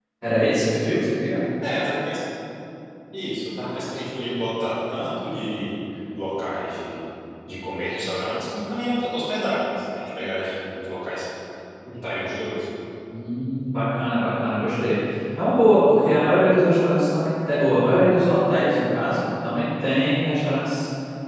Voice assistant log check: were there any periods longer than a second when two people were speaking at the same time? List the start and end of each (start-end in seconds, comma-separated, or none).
none